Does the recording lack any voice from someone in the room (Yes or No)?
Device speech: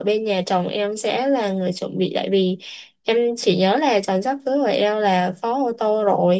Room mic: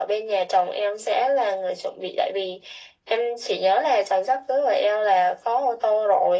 Yes